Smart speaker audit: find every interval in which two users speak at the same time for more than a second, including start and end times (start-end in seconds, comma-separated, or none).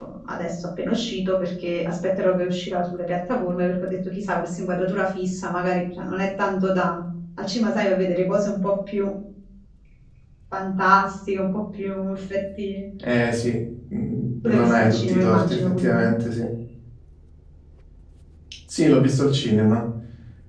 14.4-16.1